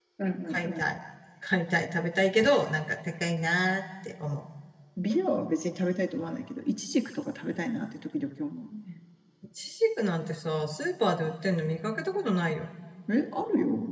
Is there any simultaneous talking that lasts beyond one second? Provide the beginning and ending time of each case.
none

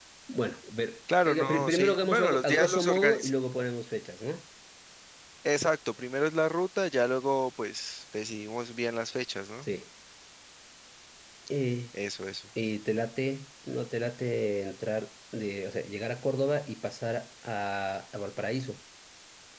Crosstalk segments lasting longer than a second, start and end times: 1.2-3.3

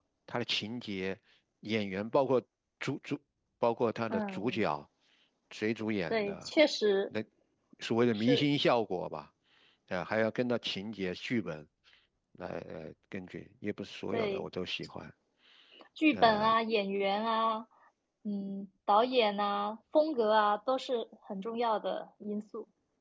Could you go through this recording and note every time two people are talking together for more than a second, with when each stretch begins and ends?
none

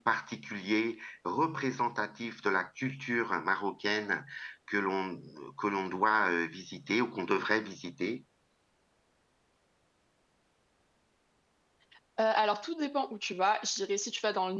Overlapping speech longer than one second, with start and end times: none

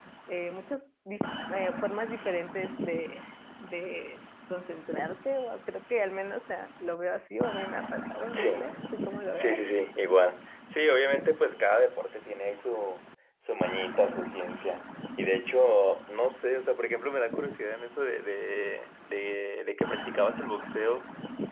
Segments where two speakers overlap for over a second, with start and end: none

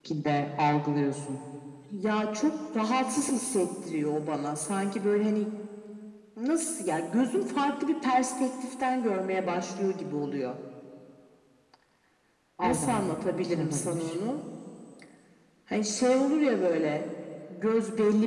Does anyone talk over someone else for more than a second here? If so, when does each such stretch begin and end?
12.6-14.0

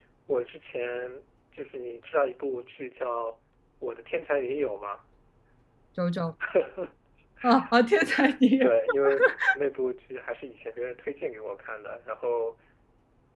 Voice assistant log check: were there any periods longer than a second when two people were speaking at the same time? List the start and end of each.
none

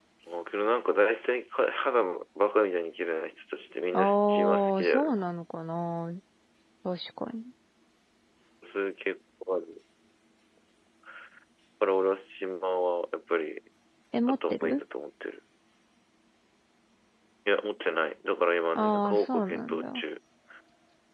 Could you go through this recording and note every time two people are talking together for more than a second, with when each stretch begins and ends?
3.9-5.2, 18.8-20.0

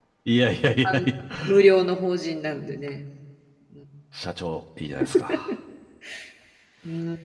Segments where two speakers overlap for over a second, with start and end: none

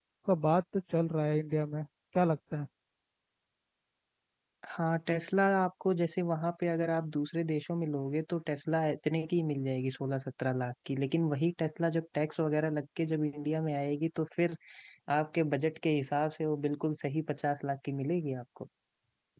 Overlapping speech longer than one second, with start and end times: none

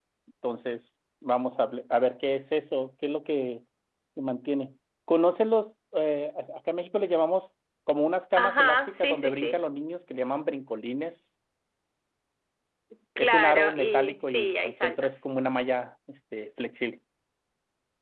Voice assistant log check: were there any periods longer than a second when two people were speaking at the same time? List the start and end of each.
8.3-9.6, 13.2-15.1

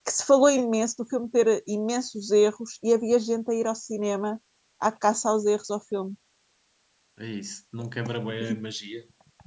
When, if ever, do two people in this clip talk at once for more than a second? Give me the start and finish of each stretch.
none

